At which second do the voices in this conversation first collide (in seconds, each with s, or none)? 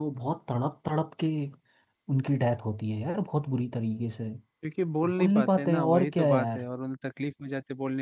5.1 s